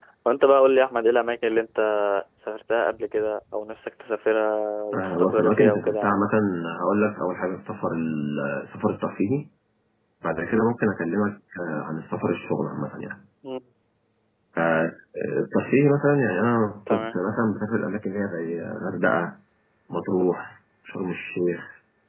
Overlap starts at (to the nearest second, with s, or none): 5 s